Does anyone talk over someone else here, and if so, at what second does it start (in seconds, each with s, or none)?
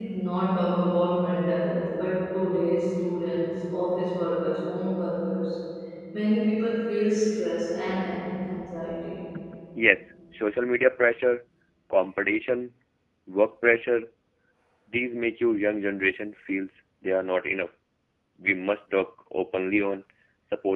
none